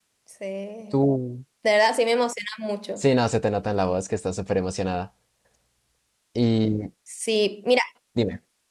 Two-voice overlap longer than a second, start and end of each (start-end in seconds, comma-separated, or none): none